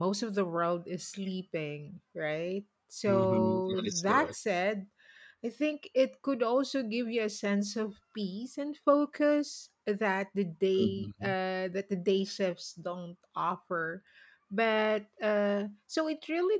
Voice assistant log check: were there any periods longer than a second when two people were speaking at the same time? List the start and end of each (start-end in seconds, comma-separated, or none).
3.1-4.3